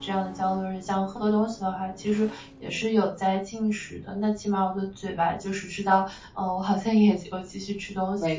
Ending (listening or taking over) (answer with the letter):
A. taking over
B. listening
A